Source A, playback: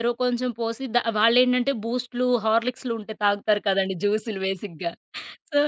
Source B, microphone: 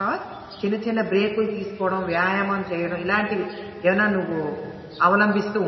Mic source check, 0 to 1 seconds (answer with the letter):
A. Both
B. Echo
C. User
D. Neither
C